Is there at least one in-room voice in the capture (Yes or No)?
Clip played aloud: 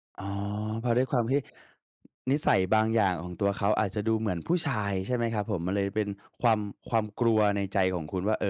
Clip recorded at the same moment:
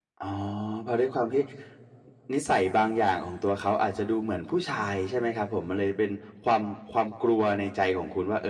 No